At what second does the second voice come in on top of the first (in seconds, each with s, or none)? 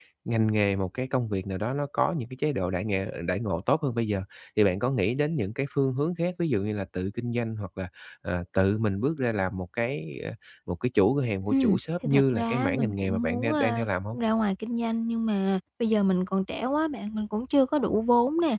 11.5 s